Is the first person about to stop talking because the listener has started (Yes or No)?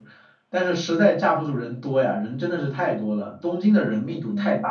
Yes